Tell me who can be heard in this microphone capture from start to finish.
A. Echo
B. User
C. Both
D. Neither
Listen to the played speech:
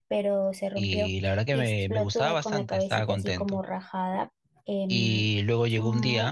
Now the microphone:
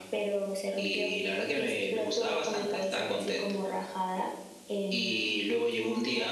A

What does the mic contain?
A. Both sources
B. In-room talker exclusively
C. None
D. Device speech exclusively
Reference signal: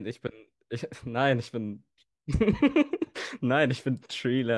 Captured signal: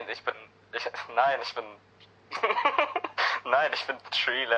D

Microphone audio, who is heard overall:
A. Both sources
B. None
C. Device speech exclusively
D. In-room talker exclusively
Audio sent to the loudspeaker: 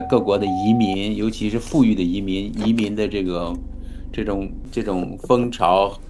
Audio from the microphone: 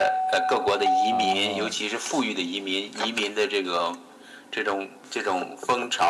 A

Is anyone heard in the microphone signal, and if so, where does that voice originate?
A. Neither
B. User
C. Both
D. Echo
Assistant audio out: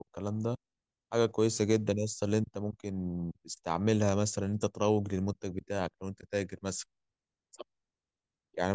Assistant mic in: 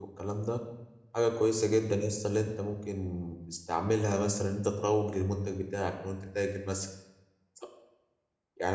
D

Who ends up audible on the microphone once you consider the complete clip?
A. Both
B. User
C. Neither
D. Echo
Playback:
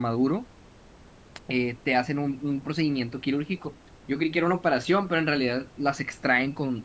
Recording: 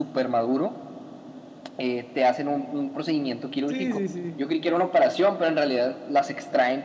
A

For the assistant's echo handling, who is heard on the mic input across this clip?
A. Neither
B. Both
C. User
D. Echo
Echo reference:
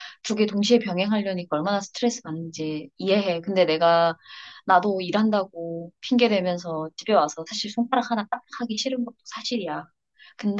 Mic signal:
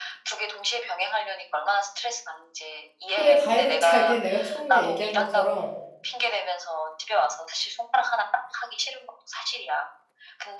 B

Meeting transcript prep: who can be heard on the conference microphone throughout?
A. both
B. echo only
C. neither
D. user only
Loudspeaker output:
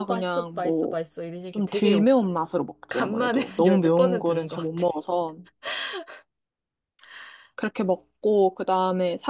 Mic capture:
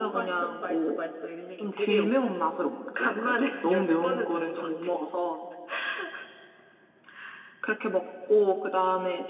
B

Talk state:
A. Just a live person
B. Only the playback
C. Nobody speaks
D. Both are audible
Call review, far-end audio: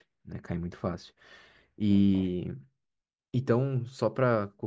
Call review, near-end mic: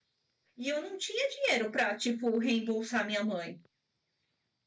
A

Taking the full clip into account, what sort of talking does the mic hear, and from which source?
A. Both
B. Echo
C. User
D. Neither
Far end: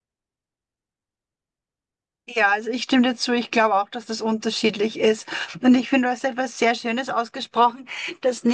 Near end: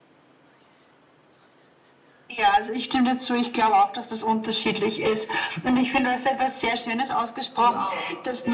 A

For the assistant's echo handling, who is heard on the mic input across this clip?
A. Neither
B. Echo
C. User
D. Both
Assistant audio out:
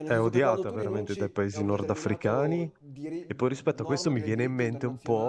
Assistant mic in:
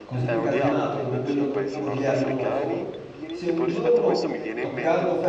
D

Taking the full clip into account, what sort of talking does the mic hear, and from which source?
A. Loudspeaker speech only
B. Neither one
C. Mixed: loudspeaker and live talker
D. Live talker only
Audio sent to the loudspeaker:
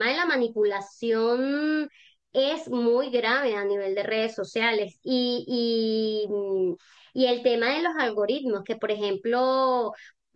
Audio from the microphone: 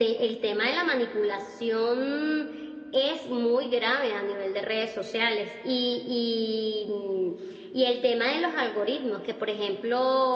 A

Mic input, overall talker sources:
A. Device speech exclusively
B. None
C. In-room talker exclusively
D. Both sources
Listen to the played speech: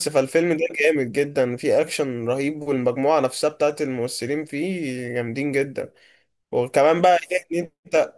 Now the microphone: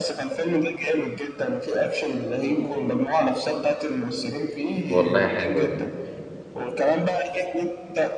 D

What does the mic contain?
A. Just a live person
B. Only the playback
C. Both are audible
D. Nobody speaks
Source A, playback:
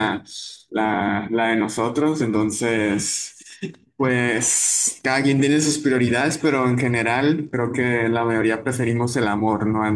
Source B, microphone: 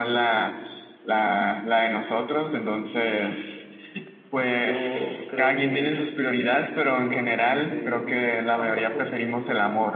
C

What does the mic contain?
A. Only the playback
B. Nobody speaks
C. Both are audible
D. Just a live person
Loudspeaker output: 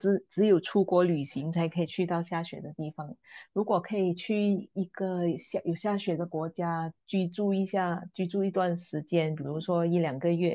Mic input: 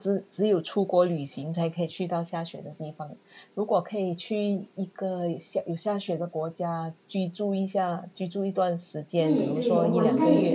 C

